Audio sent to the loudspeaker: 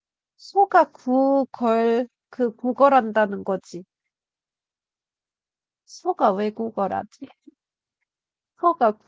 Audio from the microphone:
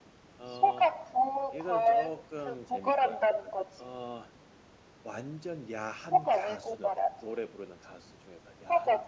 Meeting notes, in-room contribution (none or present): present